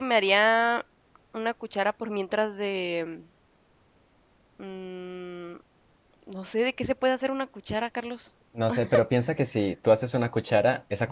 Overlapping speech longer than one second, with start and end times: none

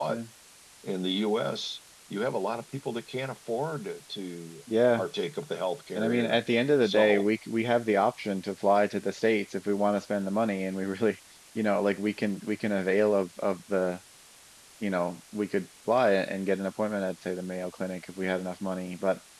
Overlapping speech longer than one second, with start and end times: none

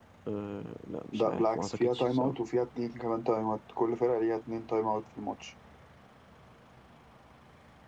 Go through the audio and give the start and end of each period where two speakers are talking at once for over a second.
1.1-2.4

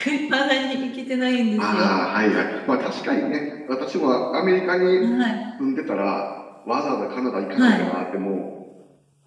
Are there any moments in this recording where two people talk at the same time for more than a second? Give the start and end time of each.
none

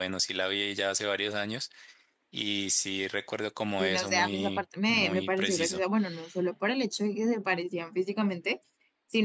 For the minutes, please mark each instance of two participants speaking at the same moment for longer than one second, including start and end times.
3.8-5.8

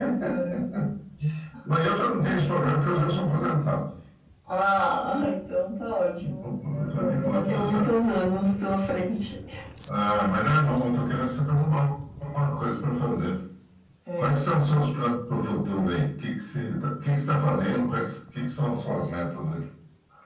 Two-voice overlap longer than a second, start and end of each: 6.4-7.9

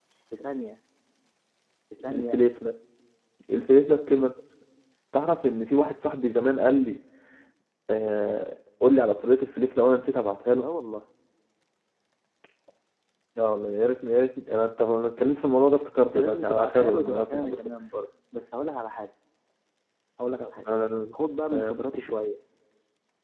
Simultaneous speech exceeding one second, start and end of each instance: 16.0-17.7

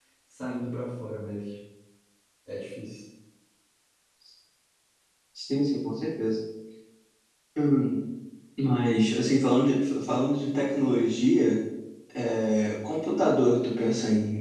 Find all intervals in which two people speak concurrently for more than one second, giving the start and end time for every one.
none

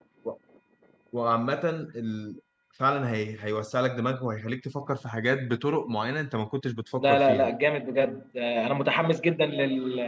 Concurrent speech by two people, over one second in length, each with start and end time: none

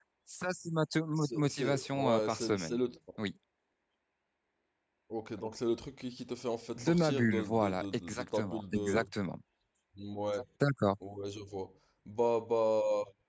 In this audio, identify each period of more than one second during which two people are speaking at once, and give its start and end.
1.2-2.8, 6.8-9.1

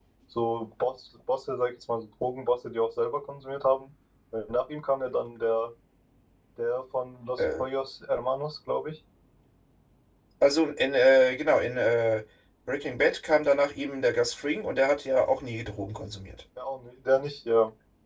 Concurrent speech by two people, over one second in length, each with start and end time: none

